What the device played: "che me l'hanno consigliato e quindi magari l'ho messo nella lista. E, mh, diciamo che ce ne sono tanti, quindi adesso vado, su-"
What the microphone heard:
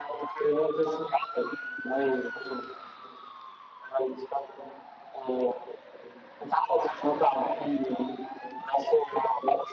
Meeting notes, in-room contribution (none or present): none